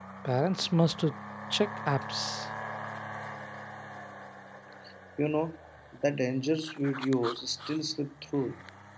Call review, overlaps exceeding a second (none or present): none